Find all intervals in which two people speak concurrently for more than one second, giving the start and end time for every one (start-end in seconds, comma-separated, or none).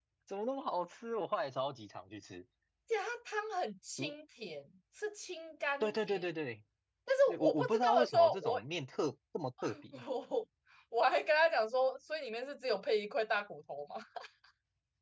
7.3-8.6